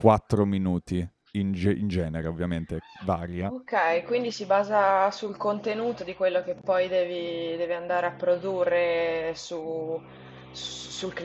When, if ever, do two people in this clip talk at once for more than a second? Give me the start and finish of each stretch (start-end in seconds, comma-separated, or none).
none